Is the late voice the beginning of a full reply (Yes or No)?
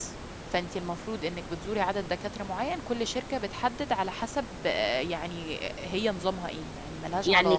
Yes